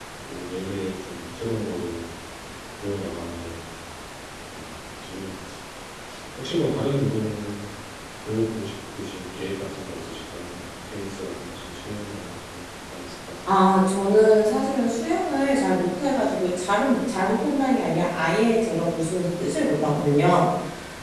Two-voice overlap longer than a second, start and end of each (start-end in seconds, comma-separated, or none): none